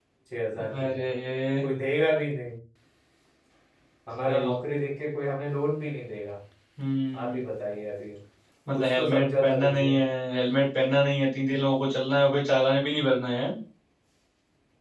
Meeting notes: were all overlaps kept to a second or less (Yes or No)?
No